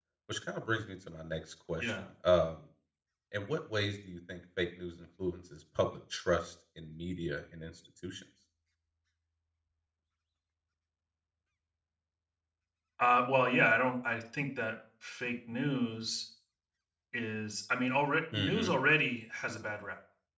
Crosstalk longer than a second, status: none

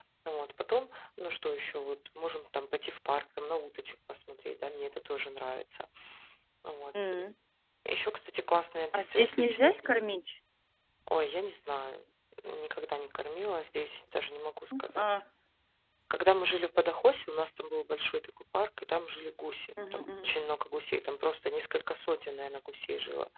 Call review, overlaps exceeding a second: present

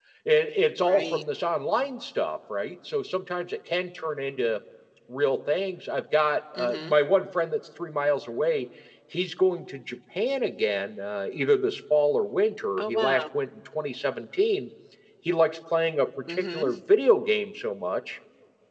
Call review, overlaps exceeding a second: none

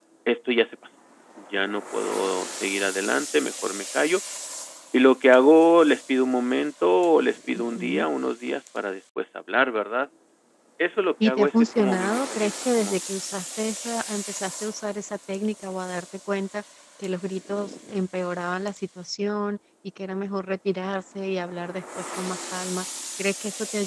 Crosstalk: present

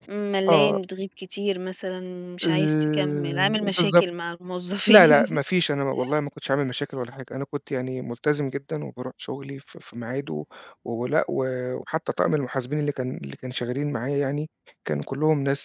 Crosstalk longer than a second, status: present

